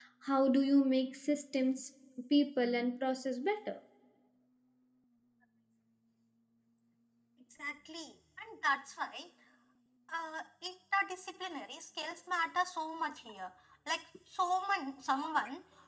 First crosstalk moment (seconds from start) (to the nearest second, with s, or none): none